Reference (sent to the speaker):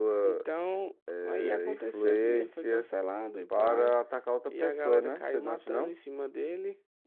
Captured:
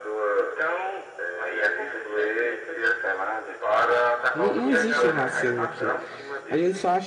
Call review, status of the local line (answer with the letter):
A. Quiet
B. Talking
B